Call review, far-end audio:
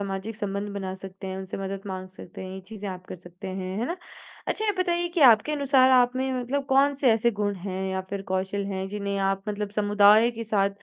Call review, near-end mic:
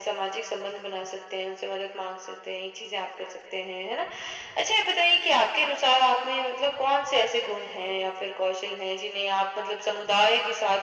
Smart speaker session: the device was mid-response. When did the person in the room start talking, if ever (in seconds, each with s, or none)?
none